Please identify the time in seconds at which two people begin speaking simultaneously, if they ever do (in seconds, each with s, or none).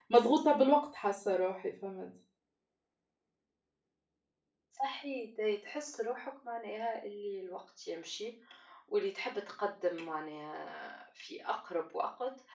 none